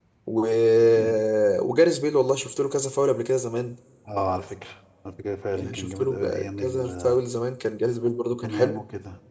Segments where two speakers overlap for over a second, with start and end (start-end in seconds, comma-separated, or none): 5.6-7.2